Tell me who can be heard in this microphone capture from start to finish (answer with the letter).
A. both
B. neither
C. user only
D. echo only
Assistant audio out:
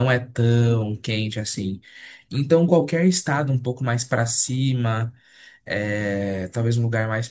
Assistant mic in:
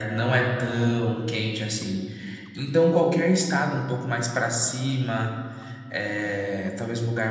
D